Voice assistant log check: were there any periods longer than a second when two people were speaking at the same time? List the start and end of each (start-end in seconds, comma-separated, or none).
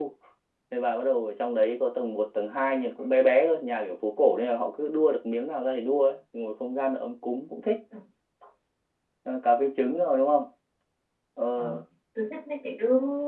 none